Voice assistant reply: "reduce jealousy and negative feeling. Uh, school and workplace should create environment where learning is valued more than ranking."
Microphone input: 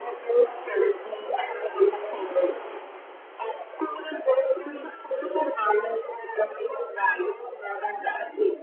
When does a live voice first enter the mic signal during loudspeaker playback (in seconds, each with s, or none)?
none